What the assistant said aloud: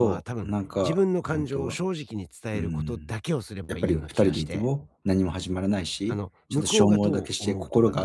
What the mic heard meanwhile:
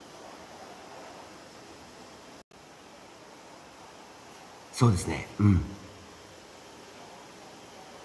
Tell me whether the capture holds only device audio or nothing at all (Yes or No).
No